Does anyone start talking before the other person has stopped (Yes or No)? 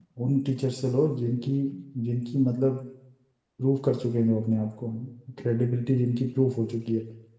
No